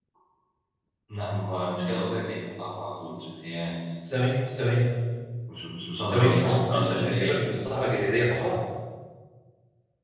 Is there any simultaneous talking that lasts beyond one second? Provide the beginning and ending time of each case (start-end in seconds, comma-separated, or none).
6.1-7.4